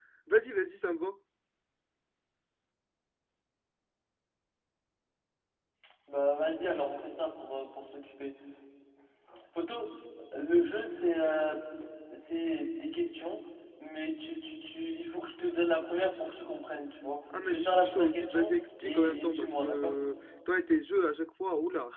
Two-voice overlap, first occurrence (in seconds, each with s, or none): 17.3 s